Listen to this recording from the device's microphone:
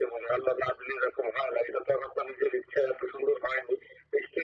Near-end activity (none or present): none